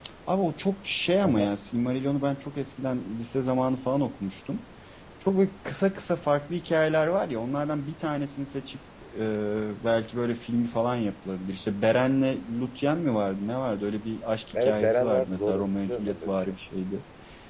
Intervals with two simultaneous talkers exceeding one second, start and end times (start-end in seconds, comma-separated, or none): 14.5-16.6